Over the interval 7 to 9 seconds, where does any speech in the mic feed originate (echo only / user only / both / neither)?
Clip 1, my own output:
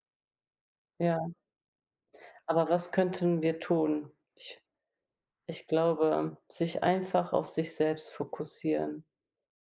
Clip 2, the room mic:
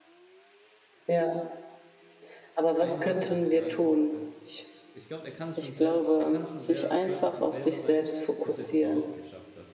both